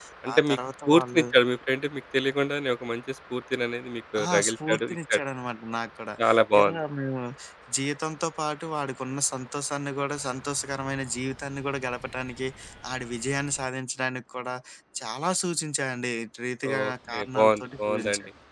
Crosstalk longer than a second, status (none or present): present